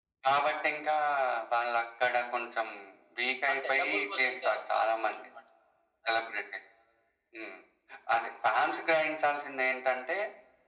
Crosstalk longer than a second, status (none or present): present